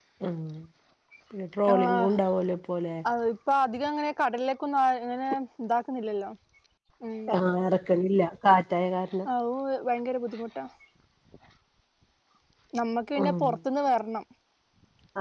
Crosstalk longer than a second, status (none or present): none